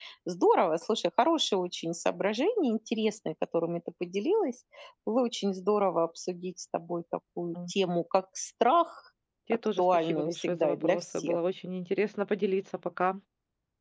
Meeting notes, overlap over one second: present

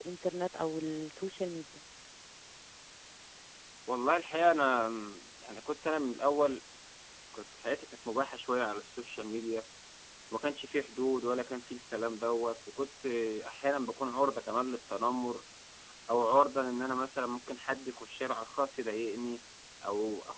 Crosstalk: none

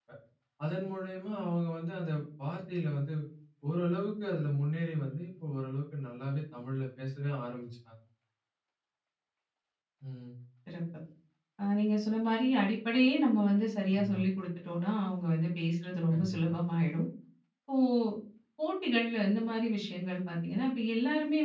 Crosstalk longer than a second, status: none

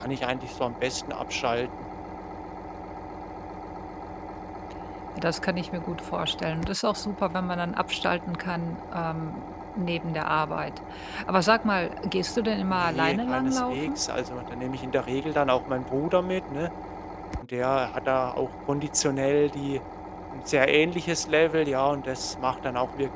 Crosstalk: present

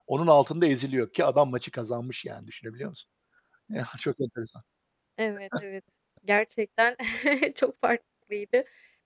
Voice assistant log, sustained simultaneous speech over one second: none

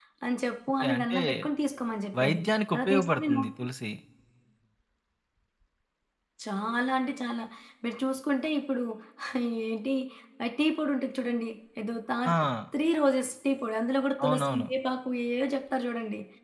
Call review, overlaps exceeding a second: present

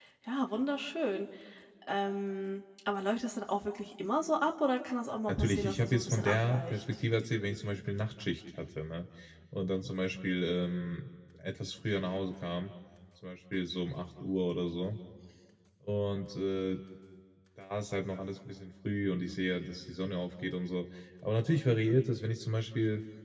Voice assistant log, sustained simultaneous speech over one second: present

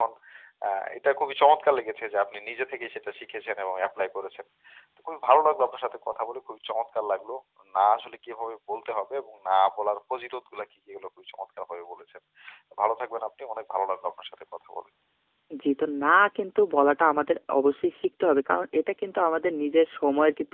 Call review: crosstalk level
none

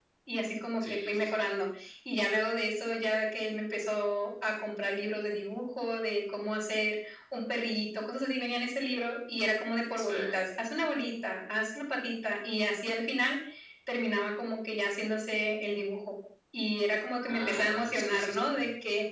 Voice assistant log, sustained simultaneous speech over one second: present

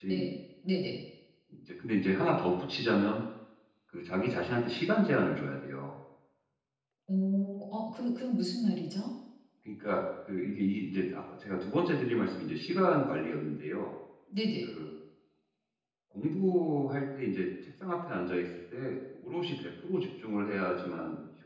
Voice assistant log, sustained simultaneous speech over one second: none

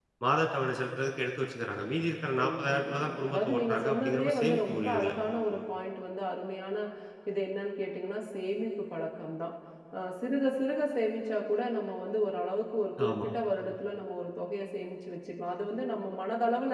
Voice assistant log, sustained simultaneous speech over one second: present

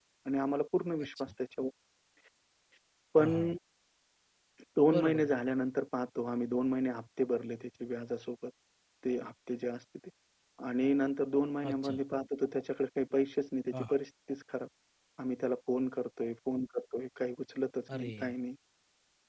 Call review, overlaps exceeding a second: none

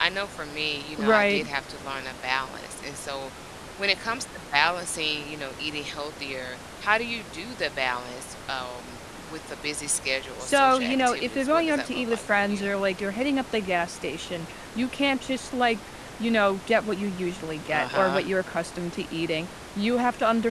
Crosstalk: present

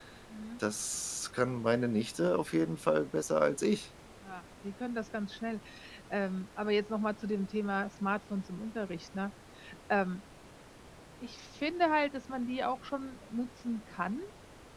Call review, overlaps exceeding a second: none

